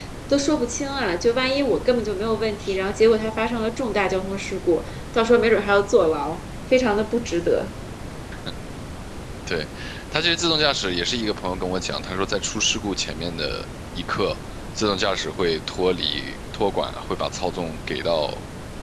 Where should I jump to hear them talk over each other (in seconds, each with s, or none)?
none